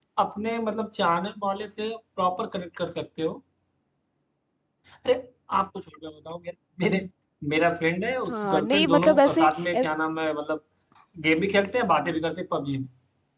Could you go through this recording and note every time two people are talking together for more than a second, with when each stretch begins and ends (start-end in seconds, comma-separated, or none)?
8.3-9.9